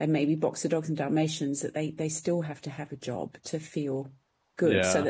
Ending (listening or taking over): listening